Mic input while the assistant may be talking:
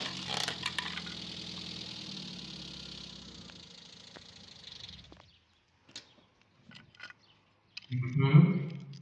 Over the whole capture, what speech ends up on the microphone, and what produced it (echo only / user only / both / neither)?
user only